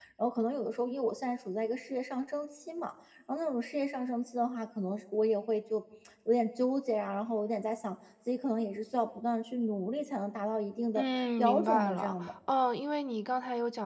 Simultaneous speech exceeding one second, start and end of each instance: 11.0-12.3

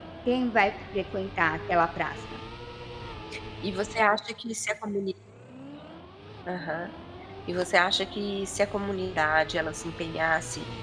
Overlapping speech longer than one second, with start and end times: none

